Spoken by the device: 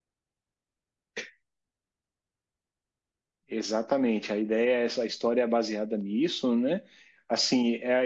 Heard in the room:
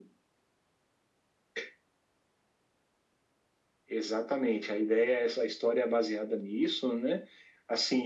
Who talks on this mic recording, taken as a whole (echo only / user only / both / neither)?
echo only